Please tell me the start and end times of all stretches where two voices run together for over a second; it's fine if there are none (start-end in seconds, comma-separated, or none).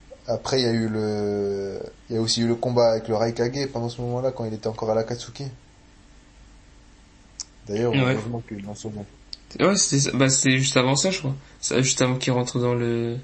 none